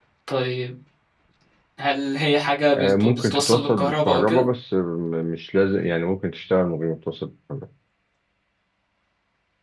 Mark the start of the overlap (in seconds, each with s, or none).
2.7 s